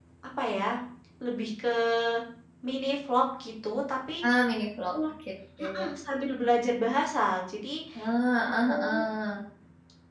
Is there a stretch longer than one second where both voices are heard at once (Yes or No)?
No